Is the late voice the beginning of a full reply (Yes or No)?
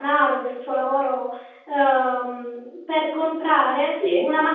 No